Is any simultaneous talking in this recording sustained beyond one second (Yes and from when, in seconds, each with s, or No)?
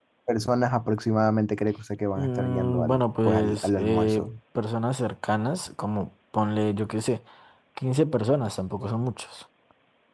Yes, from 2.2 s